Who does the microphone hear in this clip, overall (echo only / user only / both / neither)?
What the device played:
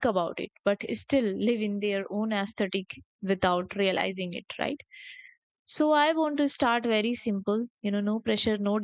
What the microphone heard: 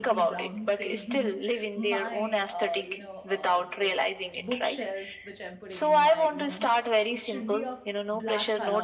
both